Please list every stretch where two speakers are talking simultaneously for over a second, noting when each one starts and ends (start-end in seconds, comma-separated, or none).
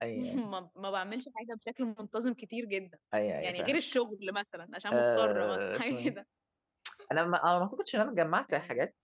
4.9-6.1